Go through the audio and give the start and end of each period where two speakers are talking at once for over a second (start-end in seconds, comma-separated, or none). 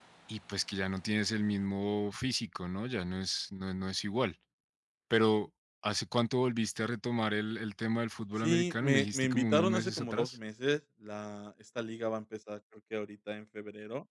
8.4-10.4